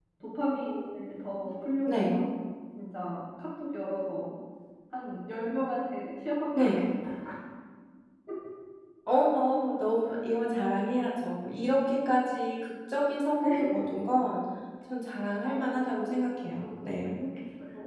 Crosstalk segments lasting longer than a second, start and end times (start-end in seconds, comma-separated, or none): 15.4-17.2